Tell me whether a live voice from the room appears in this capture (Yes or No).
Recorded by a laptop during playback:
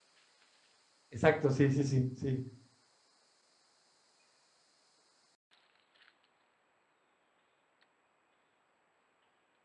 Yes